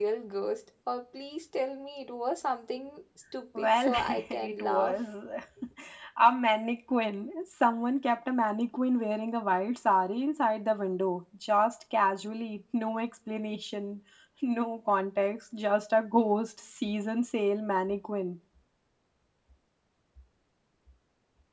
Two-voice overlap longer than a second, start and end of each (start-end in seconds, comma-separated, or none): 3.6-5.0